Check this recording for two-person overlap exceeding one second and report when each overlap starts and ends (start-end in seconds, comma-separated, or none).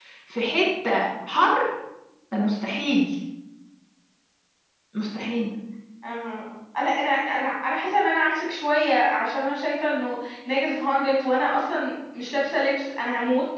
none